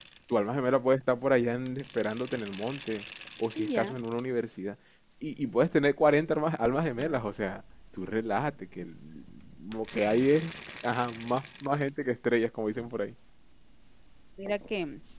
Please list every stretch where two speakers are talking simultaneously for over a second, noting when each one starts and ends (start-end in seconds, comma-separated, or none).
none